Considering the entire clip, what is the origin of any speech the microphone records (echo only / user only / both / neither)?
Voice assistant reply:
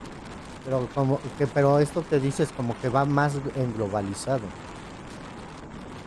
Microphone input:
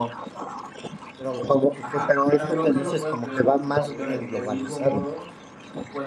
both